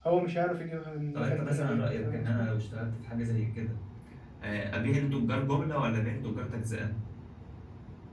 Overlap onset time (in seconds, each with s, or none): 1.1 s